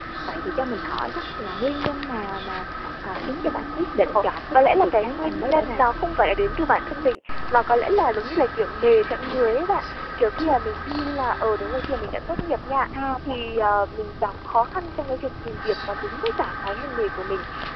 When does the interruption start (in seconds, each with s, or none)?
4.0 s